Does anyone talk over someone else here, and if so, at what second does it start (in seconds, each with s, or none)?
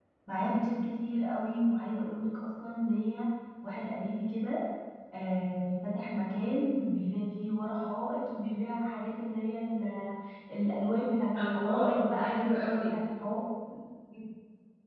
11.4 s